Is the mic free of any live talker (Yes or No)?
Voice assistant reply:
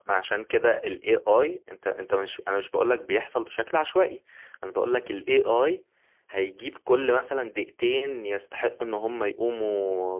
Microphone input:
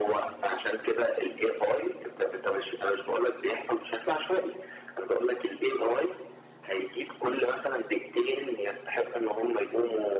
Yes